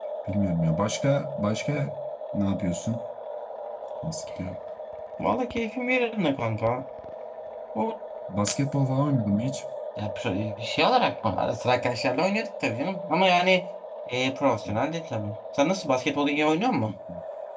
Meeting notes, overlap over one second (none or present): none